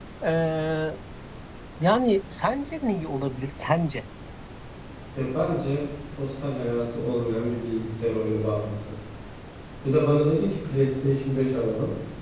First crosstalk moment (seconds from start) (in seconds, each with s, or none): none